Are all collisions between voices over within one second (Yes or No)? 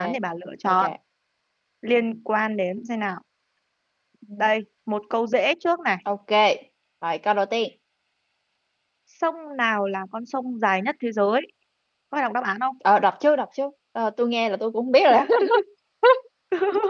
Yes